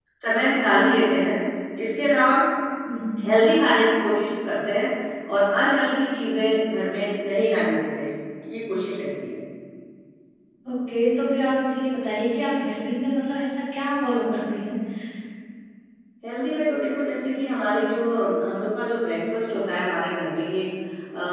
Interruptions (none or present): none